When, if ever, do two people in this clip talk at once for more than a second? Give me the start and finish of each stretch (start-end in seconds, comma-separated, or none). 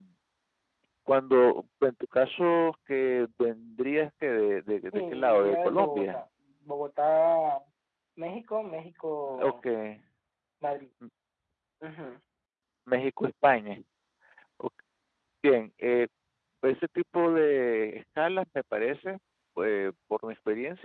4.9-6.2